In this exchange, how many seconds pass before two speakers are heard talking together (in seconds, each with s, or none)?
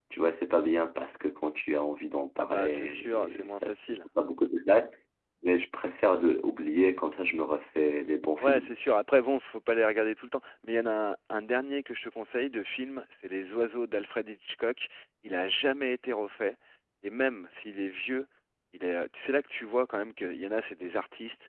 2.4 s